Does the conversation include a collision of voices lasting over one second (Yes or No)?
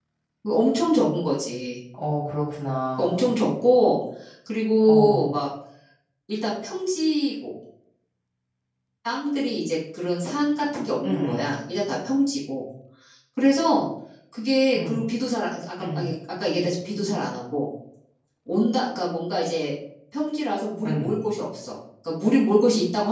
No